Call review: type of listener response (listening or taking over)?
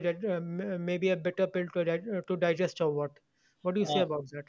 taking over